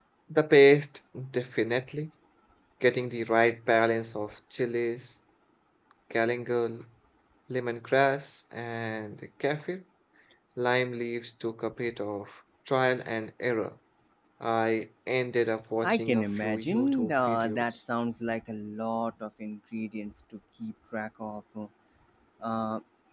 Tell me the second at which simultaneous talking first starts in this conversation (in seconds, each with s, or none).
15.8 s